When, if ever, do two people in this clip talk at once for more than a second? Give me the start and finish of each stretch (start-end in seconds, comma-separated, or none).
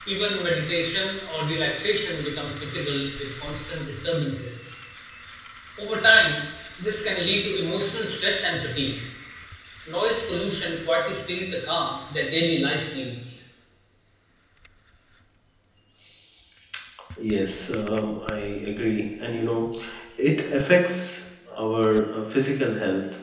none